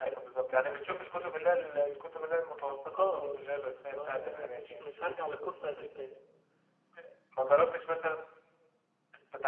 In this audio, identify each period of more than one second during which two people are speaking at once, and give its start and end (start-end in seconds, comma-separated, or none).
3.0-4.8